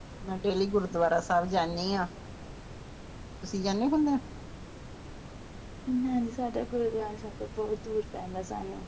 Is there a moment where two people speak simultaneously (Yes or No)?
No